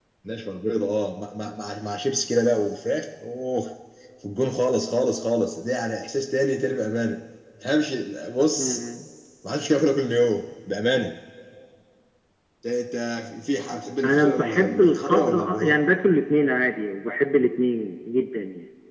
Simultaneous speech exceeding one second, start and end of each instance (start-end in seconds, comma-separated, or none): 14.0-15.8